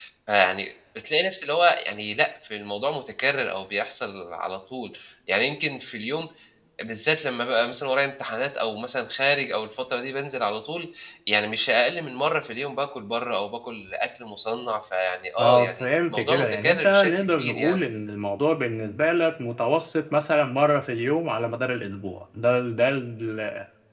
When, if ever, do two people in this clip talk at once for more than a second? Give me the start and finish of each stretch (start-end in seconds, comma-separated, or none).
15.4-17.8